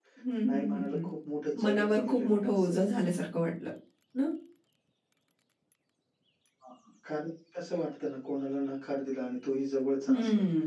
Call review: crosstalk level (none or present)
present